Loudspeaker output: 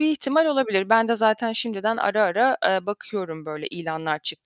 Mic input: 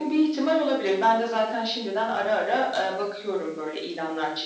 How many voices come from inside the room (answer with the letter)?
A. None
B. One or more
A